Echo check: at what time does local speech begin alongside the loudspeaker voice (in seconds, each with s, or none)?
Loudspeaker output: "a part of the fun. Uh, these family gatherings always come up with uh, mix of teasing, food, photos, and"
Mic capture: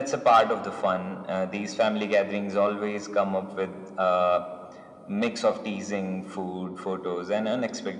none